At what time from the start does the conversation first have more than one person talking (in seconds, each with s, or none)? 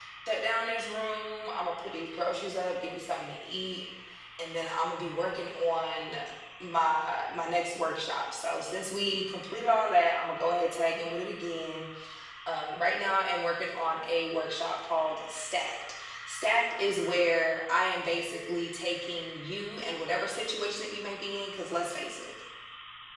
none